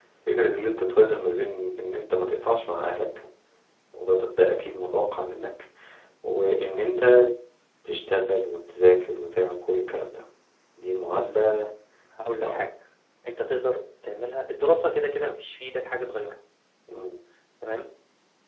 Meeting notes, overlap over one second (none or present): none